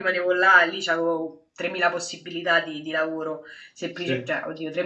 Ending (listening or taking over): listening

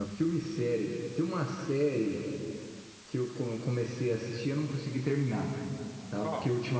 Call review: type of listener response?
listening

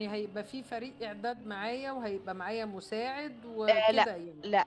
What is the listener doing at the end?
taking over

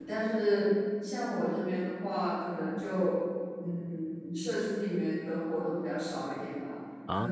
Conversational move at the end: listening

